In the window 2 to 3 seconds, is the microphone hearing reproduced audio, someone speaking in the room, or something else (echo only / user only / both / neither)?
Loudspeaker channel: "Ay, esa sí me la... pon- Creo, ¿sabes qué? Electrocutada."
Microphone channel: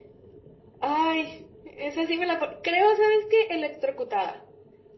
echo only